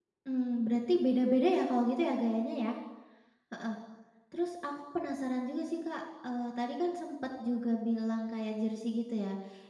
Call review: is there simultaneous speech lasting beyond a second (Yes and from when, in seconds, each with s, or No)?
No